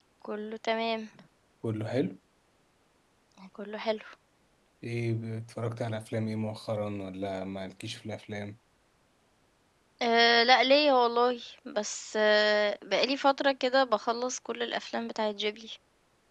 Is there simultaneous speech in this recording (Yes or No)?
No